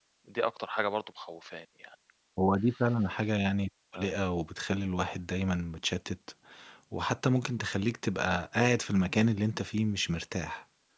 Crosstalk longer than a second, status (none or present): none